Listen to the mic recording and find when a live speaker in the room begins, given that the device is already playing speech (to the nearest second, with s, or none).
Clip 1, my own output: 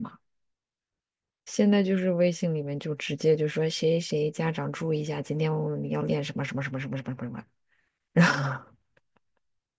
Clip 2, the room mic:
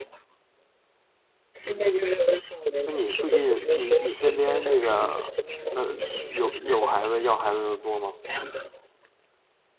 3 s